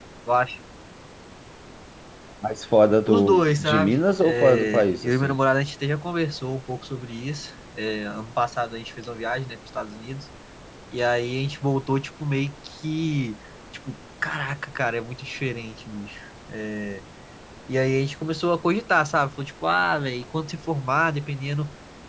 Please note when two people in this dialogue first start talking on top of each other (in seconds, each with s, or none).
3.1 s